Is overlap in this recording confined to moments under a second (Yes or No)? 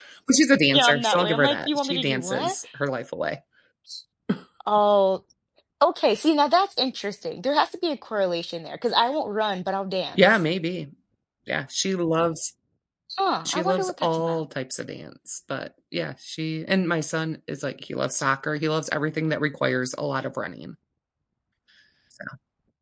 No